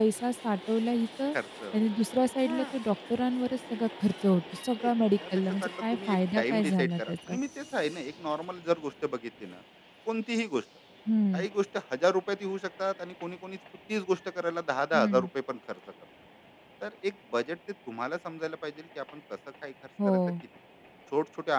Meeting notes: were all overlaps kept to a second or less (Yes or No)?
No